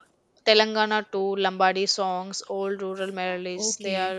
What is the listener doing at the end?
taking over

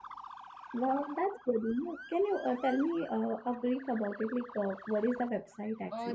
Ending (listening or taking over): taking over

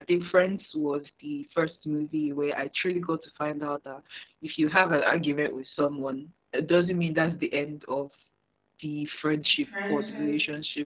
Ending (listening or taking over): listening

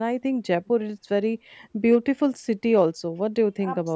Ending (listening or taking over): taking over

